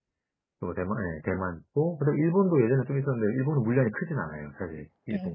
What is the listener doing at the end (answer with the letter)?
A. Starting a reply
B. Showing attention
A